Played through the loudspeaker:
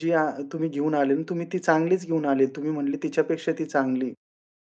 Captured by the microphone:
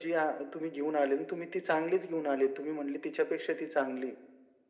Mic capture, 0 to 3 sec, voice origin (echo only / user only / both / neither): echo only